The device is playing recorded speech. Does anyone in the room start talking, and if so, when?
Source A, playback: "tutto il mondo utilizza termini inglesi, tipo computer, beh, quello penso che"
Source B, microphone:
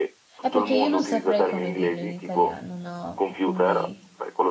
0 s

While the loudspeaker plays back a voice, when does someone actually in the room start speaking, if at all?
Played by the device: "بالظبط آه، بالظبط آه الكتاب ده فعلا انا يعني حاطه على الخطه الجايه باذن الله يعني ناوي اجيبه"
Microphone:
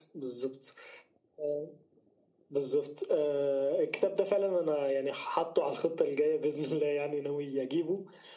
none

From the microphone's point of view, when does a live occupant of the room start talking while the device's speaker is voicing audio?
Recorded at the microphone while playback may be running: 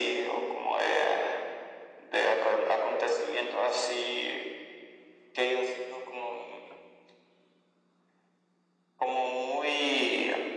none

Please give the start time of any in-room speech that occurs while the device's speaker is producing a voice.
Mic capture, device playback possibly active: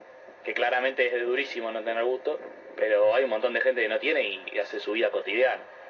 none

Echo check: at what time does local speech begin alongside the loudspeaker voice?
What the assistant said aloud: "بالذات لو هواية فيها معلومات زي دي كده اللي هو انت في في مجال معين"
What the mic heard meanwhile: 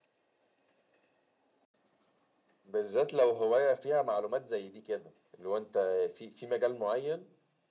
none

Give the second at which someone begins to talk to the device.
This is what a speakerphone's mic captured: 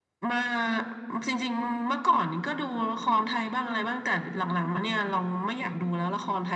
none

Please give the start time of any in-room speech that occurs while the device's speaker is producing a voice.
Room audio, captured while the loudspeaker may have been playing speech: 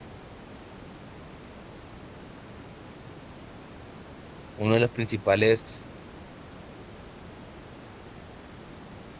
5 s

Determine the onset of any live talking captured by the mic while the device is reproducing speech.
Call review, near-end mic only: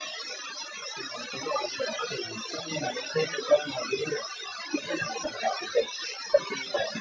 none

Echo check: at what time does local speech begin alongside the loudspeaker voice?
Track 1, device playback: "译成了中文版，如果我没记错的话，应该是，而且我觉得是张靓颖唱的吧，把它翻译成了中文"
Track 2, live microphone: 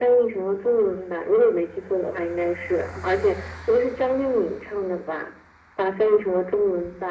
none

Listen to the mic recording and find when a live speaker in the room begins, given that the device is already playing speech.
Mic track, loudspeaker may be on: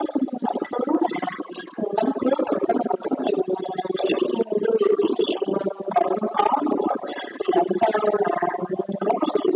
none

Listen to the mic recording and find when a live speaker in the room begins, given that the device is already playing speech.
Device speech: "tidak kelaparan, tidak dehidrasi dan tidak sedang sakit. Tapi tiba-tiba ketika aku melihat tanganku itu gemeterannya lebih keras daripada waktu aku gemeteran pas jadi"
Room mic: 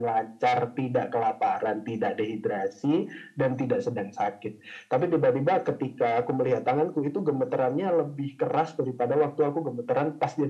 none

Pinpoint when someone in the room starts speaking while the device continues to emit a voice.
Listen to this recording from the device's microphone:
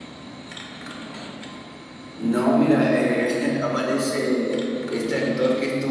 none

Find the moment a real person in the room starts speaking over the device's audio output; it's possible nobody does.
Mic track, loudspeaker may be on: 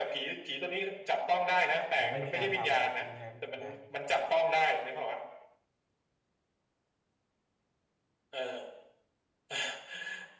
2 s

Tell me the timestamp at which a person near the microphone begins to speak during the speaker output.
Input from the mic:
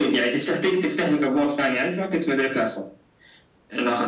none

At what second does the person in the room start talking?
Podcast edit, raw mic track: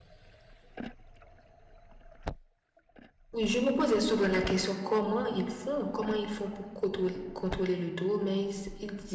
3 s

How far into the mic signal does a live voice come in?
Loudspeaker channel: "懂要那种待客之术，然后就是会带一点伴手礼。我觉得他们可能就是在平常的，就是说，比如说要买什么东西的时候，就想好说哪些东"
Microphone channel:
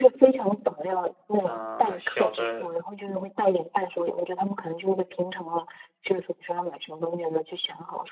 1 s

